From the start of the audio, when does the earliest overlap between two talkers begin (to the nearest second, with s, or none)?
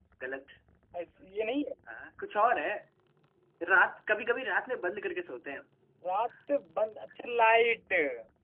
none